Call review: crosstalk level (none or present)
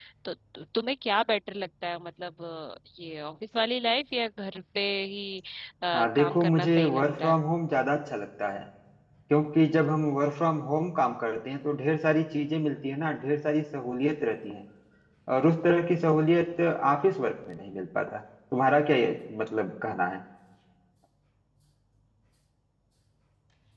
present